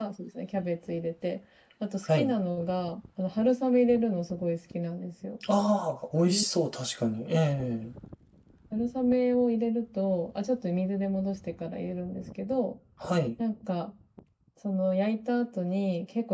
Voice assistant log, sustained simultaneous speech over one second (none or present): none